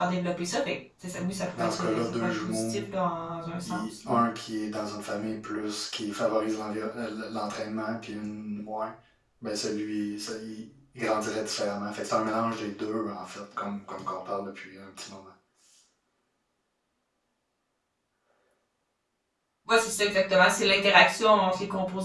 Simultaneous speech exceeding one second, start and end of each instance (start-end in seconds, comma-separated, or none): 1.4-2.8